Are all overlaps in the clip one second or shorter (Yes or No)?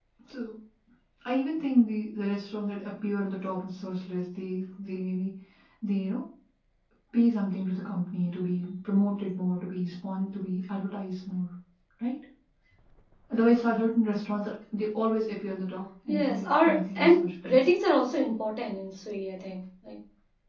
No